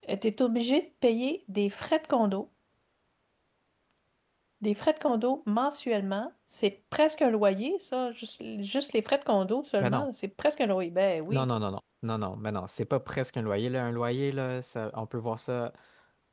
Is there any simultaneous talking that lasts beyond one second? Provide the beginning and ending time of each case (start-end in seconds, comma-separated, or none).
none